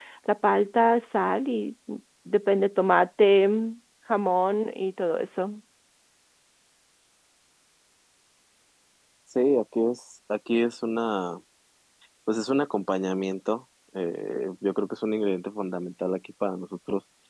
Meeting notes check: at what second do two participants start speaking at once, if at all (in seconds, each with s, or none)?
none